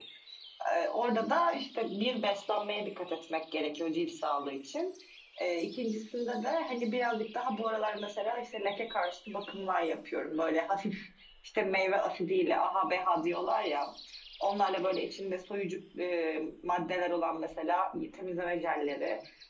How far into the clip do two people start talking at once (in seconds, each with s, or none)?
none